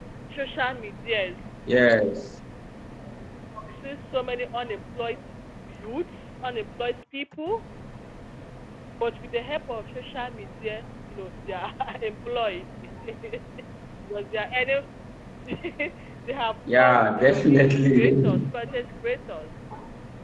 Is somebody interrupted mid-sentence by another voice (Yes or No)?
Yes